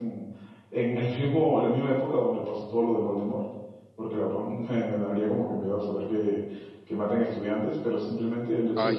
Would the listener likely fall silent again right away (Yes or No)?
Yes